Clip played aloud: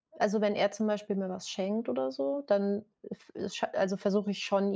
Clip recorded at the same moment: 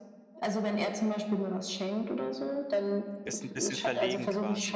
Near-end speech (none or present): present